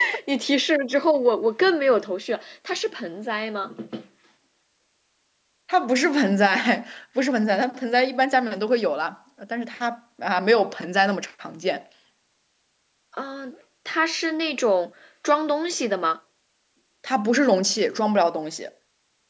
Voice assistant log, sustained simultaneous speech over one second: none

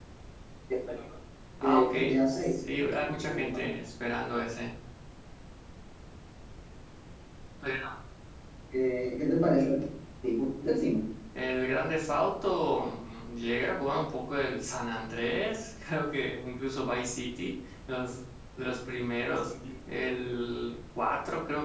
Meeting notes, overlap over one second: present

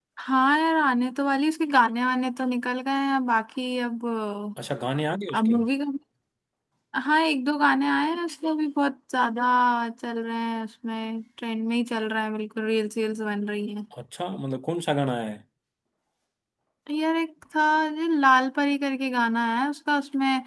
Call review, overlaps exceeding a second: none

